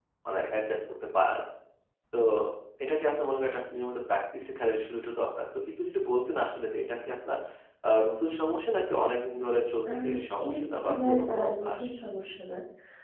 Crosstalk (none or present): present